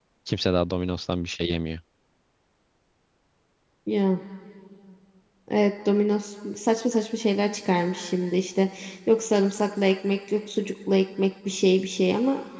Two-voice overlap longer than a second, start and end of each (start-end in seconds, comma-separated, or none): none